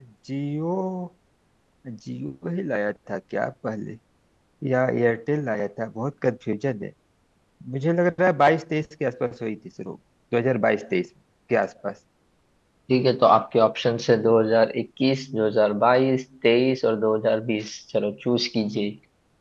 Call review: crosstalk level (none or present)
none